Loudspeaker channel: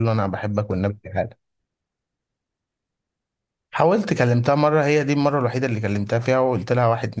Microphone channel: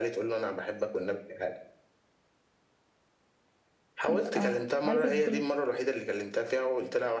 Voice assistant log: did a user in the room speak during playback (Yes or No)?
Yes